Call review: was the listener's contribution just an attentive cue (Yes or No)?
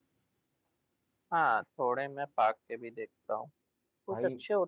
Yes